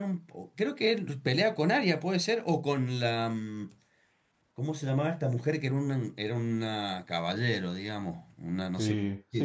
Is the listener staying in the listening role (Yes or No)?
No